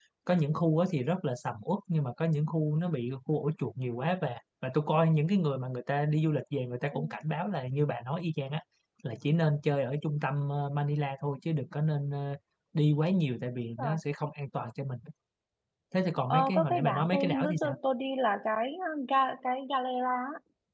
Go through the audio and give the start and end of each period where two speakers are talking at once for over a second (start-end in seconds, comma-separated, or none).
16.3-17.8